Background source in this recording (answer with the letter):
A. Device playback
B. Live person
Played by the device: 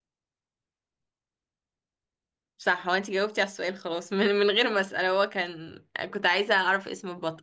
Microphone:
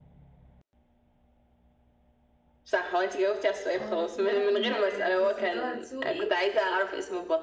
B